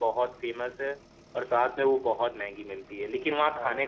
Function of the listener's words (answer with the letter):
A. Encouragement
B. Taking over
A